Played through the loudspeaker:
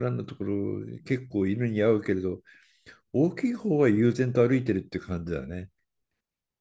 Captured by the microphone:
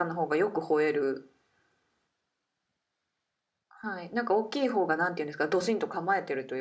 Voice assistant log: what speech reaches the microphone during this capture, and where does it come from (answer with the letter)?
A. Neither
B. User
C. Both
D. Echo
B